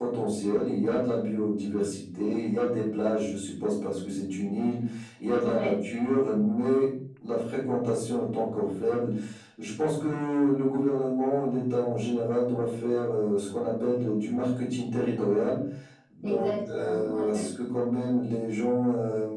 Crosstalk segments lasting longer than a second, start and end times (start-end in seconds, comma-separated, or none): 16.2-17.4